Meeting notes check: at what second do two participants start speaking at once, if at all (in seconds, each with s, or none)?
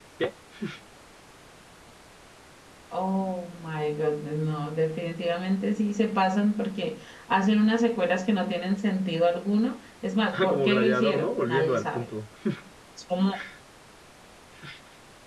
10.5 s